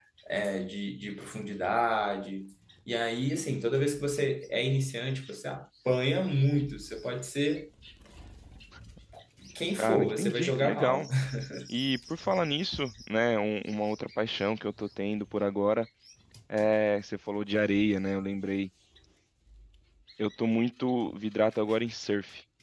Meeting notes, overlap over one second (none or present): present